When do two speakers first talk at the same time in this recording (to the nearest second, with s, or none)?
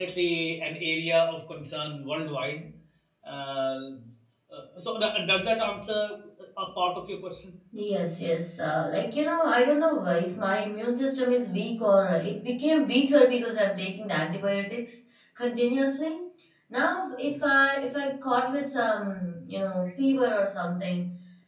none